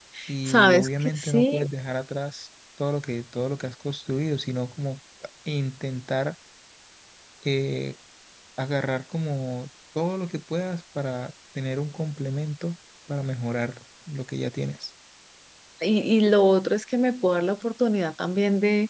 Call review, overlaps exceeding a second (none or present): present